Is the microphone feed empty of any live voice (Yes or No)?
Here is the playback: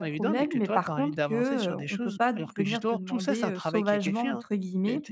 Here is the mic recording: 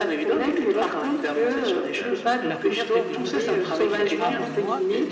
No